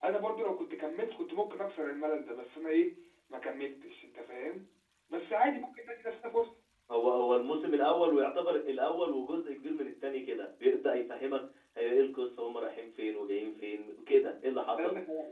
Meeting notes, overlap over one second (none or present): none